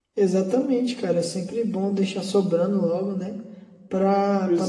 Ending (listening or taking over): listening